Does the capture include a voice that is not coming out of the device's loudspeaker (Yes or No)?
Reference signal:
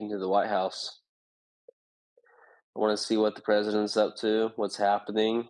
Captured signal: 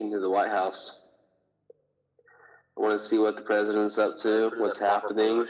Yes